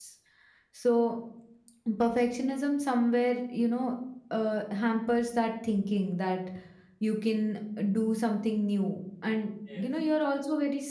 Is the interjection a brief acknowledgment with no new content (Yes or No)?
Yes